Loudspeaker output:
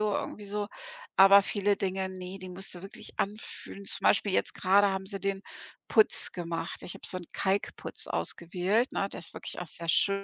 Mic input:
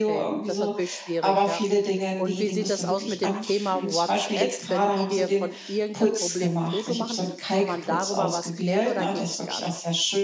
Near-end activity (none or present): present